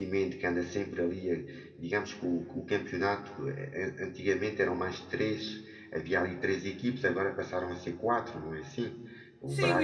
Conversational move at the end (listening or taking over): taking over